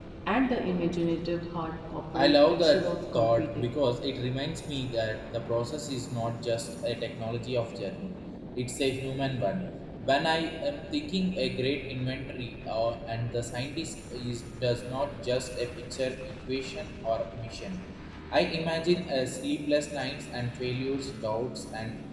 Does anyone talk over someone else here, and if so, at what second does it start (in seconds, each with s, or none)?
2.1 s